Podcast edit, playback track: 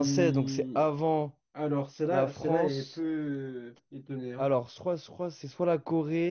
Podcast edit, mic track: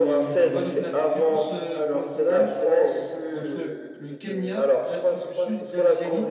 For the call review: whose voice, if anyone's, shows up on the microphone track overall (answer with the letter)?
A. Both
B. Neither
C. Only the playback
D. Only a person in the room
A